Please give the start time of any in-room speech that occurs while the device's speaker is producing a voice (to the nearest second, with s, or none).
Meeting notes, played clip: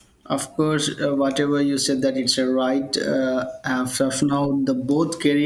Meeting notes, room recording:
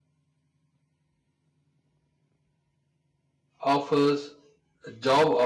4 s